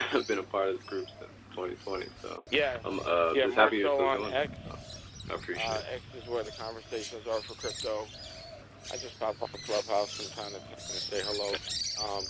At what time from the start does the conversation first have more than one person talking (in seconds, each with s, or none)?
3.3 s